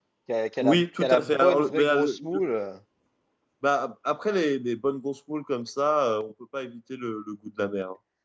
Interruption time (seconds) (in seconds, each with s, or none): 0.6 s